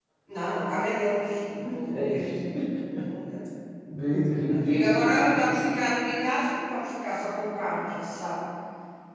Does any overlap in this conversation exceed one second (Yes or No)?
Yes